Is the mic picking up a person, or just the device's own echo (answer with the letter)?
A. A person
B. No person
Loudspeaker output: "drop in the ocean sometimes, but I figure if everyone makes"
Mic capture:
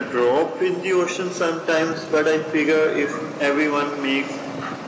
B